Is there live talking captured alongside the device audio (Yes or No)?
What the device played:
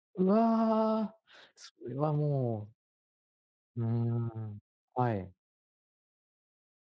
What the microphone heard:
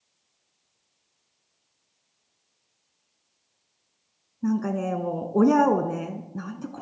Yes